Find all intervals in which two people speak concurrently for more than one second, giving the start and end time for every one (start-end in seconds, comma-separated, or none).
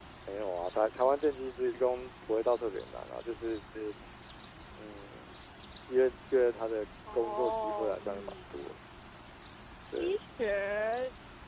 7.1-8.4